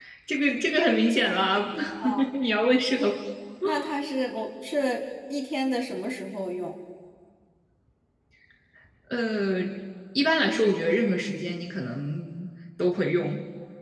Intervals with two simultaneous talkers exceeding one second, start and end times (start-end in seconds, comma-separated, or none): none